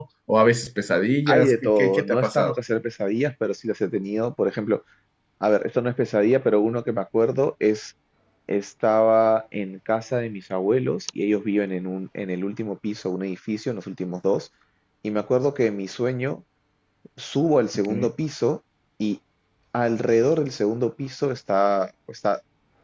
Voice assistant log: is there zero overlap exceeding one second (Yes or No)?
No